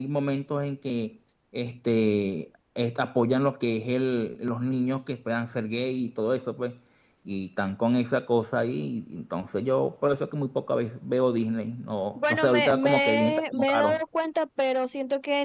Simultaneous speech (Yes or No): Yes